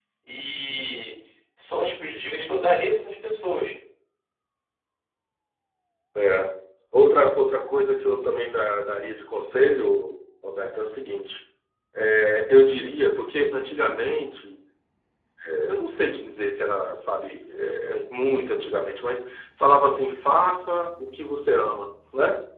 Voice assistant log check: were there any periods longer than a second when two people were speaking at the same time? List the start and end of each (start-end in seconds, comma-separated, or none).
none